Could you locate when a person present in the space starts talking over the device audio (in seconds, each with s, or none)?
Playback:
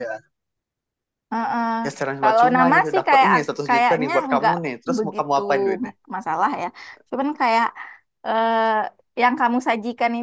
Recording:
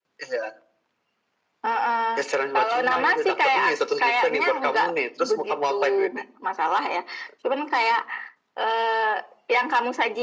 none